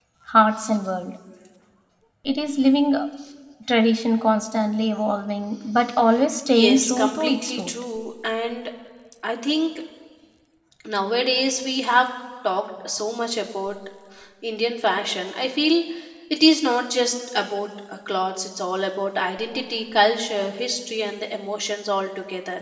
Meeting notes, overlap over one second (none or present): present